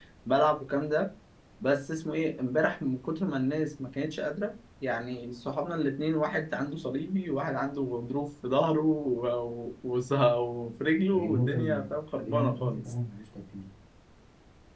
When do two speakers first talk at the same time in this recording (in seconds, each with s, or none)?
11.1 s